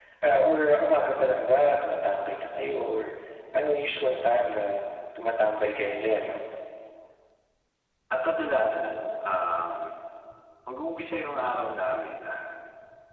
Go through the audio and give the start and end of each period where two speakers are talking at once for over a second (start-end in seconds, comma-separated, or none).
none